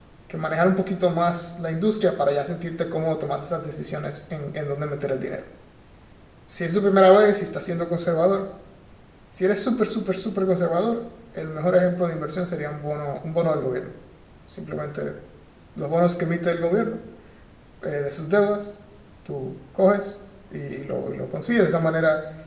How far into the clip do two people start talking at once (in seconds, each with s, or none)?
none